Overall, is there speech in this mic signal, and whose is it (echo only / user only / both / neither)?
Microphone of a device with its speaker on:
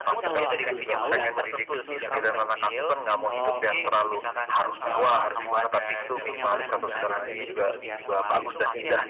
both